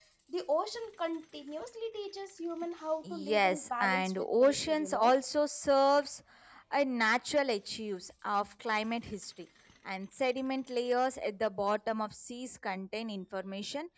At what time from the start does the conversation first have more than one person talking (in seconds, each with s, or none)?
3.0 s